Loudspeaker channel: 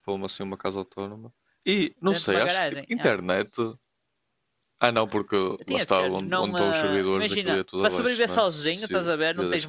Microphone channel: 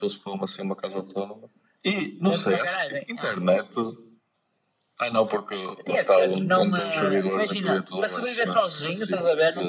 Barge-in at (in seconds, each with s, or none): none